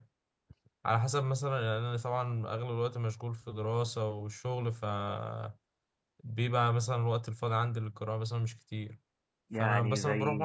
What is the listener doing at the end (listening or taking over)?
listening